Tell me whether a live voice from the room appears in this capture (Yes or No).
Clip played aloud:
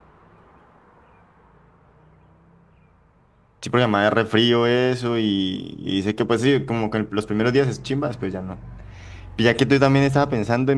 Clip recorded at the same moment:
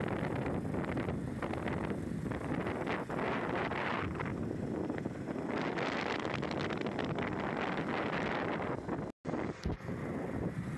No